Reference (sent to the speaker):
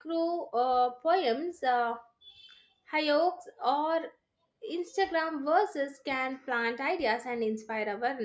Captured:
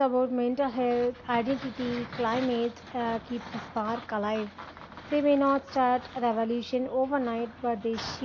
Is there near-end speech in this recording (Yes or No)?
Yes